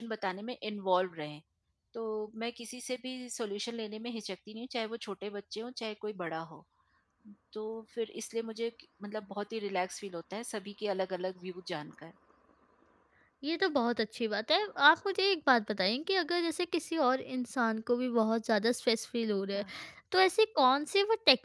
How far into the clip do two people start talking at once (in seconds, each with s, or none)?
none